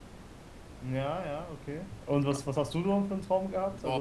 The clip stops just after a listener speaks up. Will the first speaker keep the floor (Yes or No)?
No